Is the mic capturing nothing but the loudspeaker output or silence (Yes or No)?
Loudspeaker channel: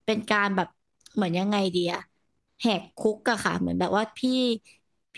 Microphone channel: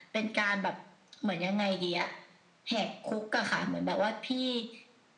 Yes